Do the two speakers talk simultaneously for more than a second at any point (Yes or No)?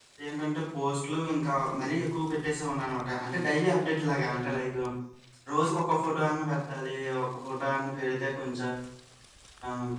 No